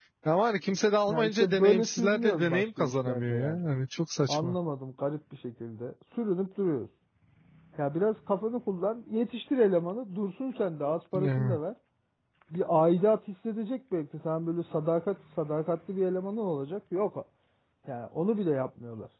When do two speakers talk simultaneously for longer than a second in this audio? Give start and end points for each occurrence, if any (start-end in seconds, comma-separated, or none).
1.1-3.6